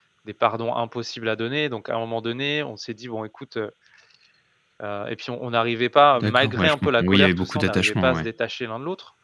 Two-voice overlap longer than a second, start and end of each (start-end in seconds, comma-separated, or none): 6.1-8.3